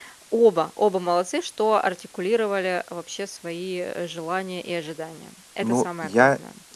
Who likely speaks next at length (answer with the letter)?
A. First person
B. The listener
B